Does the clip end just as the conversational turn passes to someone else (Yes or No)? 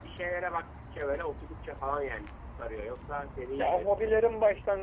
Yes